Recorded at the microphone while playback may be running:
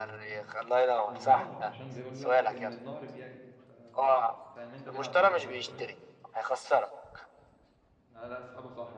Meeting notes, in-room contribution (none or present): present